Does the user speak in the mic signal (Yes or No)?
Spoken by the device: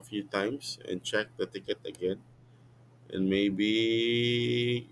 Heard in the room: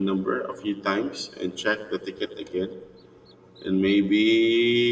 No